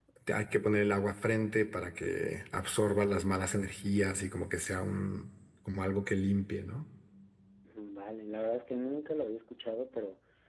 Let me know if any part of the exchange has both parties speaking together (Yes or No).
No